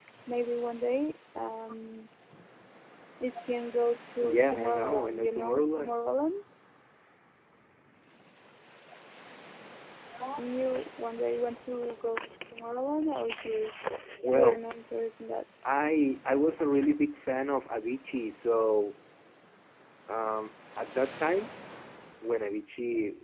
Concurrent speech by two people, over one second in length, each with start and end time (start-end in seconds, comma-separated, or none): 4.2-6.0